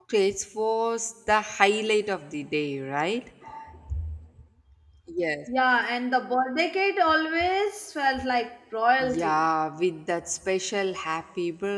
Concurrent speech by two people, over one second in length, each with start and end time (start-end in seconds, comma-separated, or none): none